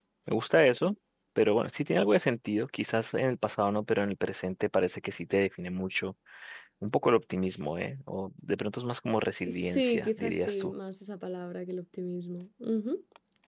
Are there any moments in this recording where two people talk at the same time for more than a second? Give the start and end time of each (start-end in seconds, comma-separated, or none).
9.5-10.7